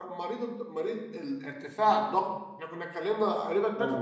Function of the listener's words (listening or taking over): taking over